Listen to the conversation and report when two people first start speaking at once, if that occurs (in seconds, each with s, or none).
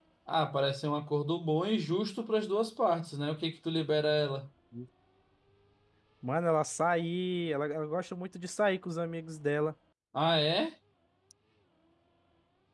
none